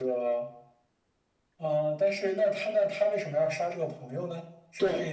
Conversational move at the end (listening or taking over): taking over